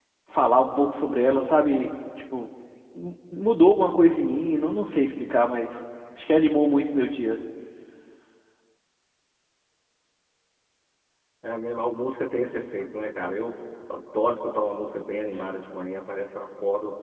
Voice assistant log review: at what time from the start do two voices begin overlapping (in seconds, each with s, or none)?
none